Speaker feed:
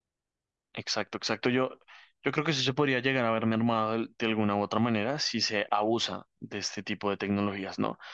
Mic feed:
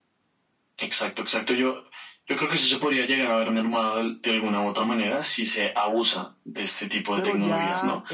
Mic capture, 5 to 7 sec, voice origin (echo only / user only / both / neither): echo only